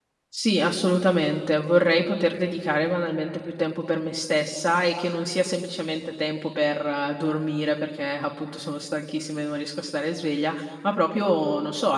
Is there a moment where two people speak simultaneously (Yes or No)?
No